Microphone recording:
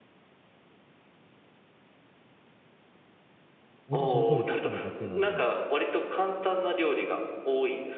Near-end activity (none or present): present